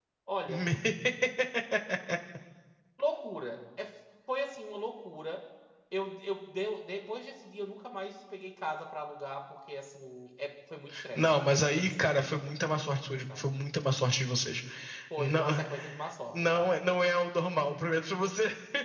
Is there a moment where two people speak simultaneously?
Yes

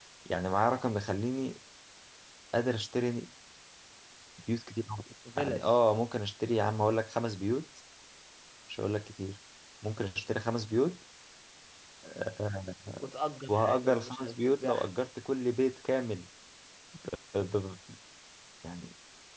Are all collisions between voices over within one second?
No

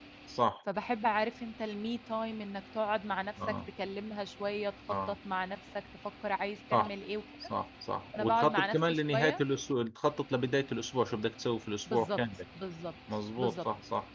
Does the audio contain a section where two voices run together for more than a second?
Yes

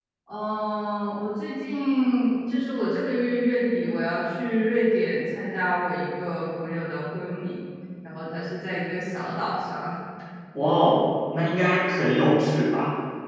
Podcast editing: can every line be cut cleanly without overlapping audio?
Yes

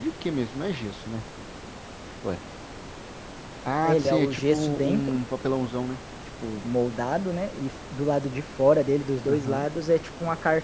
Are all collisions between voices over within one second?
No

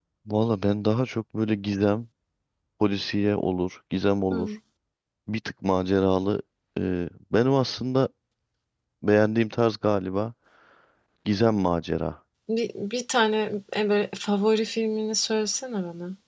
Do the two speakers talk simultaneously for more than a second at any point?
No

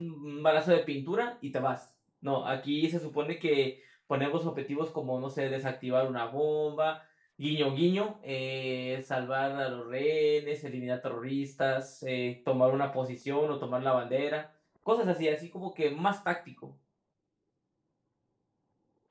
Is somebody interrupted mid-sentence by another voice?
No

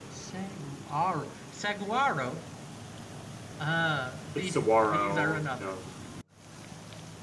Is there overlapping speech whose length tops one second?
Yes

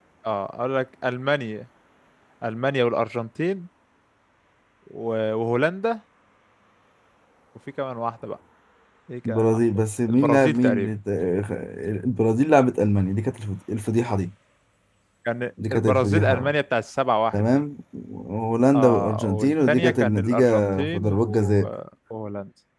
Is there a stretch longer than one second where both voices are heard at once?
Yes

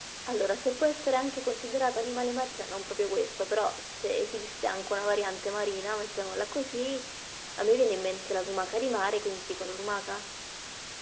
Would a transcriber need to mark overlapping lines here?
No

